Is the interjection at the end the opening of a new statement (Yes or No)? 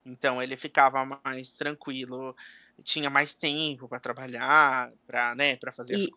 No